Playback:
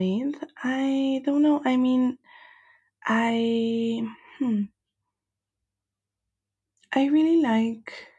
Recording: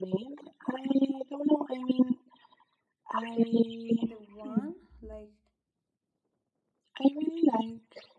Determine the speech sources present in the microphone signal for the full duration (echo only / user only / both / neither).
both